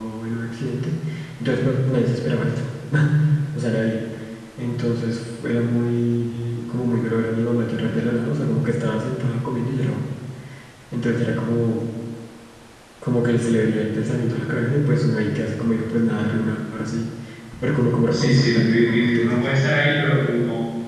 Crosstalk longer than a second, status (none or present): present